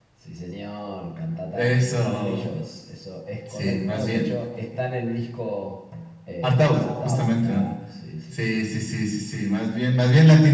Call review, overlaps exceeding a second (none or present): present